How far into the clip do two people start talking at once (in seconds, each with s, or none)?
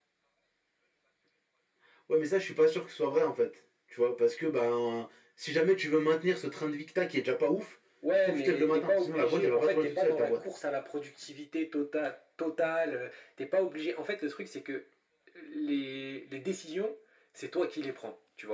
8.0 s